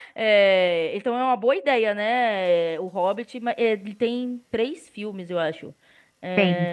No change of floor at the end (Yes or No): Yes